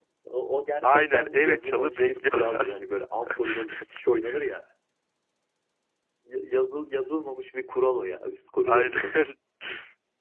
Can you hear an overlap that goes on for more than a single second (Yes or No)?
Yes